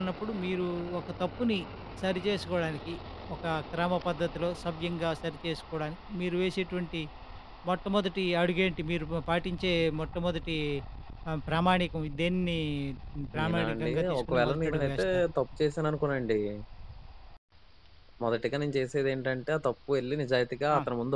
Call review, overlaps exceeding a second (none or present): present